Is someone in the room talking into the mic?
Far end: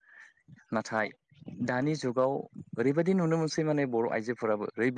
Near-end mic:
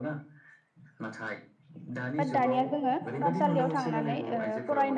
Yes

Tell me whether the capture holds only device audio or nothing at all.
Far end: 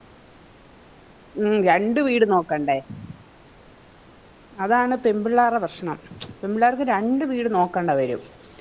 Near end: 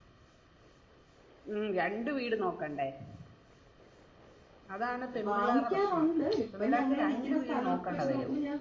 No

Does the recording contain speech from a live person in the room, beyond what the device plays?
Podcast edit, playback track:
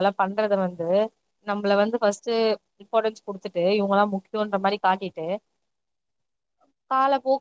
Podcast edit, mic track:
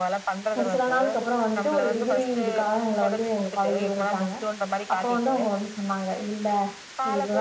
Yes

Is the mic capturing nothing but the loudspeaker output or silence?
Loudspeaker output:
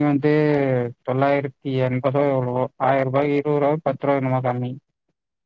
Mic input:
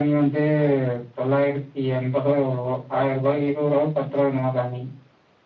Yes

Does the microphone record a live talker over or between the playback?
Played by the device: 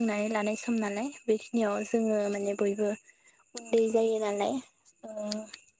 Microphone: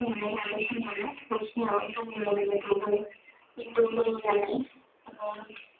No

